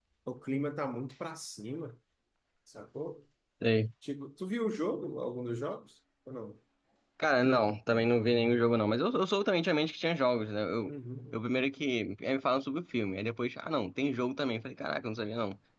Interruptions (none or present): none